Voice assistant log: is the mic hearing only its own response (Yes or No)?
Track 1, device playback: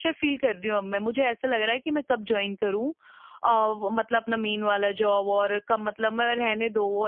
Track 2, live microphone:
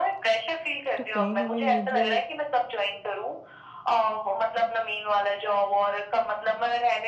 No